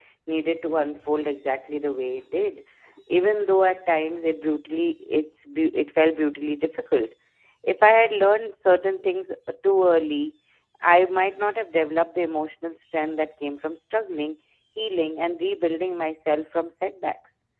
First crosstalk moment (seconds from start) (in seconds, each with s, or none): none